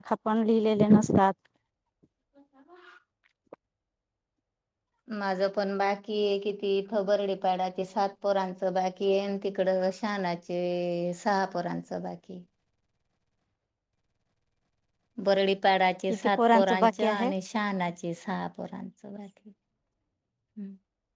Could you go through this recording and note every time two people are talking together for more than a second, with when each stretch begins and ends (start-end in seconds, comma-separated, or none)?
16.1-17.3